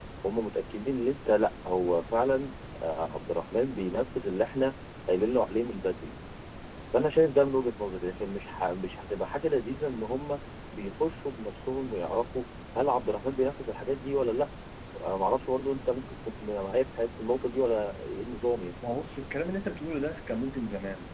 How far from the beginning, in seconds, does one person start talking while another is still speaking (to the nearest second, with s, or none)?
none